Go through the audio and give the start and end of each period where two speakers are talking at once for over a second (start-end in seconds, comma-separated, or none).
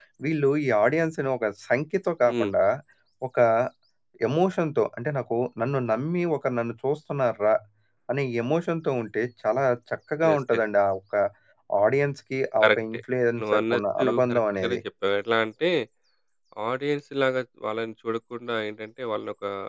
13.4-14.8